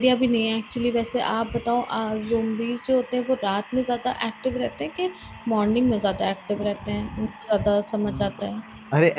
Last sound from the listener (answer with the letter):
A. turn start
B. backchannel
A